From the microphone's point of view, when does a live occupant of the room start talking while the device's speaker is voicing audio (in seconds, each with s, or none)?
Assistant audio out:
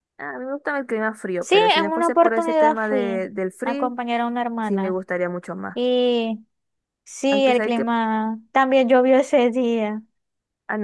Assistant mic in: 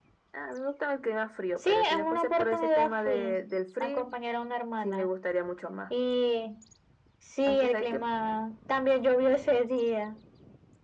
none